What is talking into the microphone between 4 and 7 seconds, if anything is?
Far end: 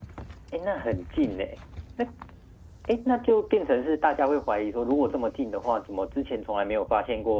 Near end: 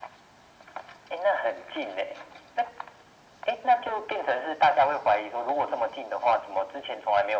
echo only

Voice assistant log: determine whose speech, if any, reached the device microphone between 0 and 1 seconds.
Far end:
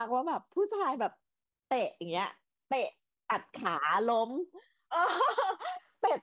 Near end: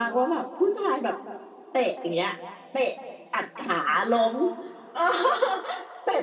echo only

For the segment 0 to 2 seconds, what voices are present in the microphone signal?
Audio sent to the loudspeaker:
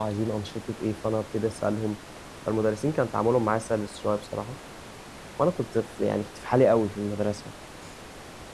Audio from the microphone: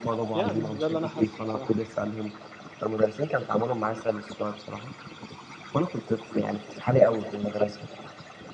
both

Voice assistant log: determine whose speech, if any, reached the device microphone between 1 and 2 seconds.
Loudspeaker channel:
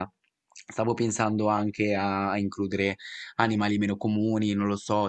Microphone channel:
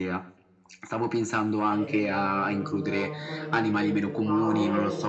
both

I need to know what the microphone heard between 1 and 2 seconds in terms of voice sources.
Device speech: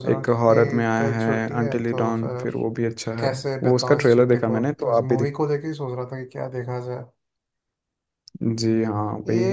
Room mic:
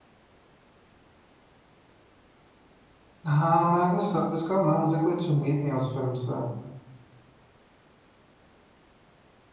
neither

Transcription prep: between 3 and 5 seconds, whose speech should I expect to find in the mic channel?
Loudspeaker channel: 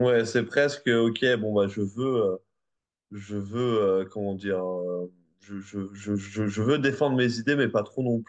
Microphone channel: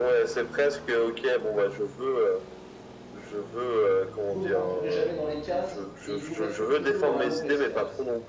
both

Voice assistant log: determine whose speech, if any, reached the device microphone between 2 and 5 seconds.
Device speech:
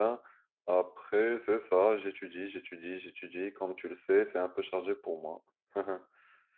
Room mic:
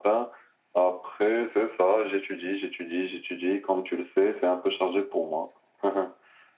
echo only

